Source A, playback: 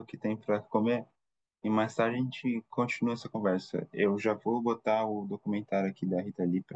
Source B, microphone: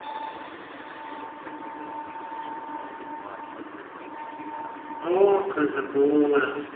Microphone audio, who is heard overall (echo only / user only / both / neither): user only